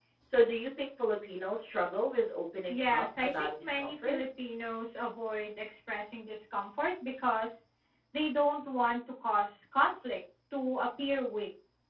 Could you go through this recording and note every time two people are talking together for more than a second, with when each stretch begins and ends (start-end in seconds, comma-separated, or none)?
2.7-4.2